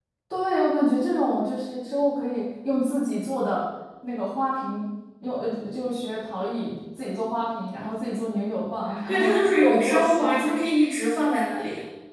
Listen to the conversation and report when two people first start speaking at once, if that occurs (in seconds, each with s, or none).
8.9 s